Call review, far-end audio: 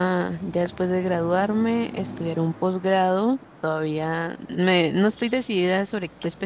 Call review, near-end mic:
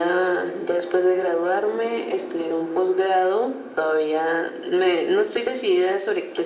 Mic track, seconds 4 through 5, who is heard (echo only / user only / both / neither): echo only